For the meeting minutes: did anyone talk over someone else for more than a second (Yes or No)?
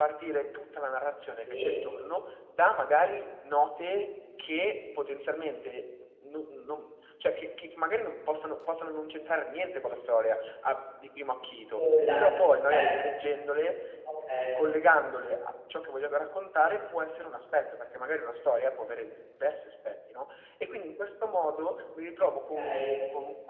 No